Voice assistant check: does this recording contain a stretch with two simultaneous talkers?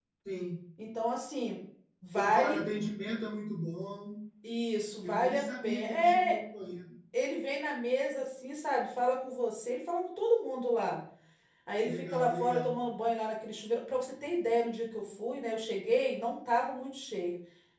Yes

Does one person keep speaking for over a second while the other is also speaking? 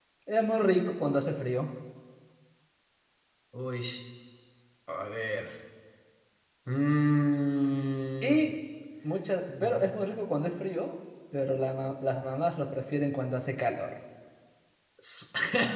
No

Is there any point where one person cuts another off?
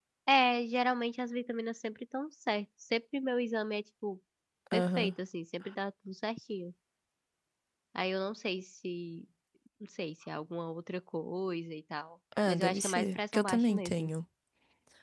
Yes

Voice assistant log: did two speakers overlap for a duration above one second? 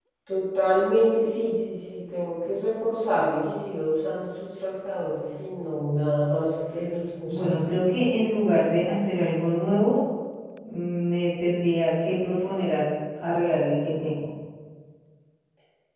No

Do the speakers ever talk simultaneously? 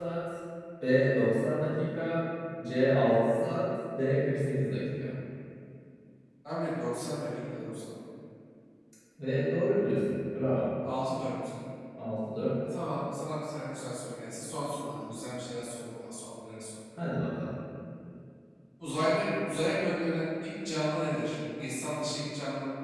No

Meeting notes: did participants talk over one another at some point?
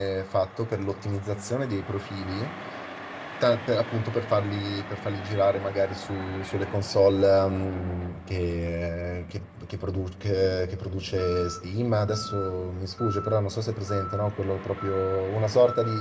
No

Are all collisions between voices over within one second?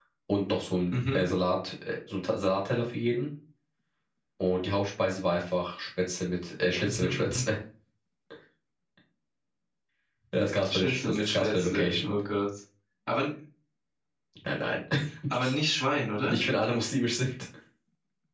No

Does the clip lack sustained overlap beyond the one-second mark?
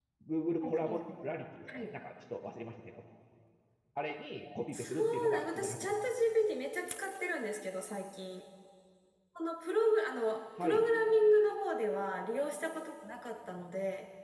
No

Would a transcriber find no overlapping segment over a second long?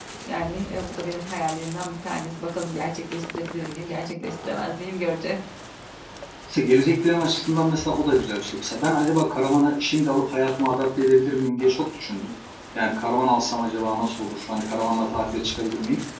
Yes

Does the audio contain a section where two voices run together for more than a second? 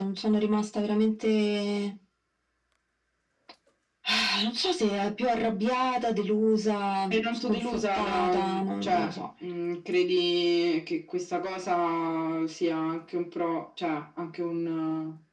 Yes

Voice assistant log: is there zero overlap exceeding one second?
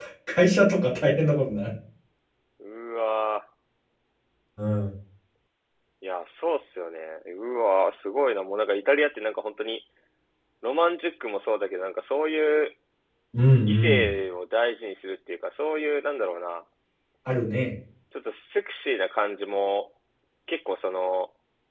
Yes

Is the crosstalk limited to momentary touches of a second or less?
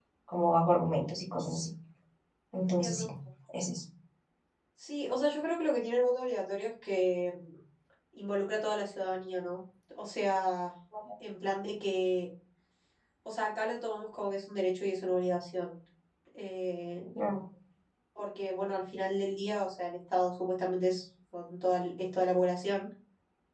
Yes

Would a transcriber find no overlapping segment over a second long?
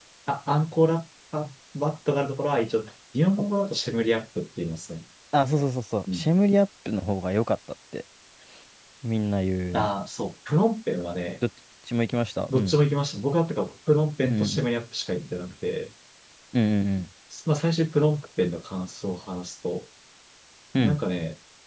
Yes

